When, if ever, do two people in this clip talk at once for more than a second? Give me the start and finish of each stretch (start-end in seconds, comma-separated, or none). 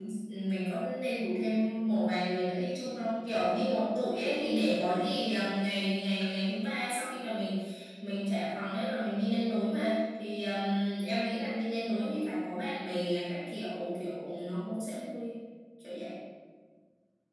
none